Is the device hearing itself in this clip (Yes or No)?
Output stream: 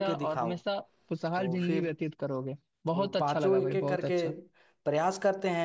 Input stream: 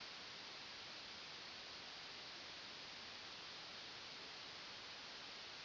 No